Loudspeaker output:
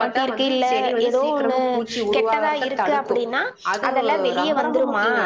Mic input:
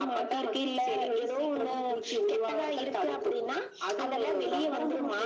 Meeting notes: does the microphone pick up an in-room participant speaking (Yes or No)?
No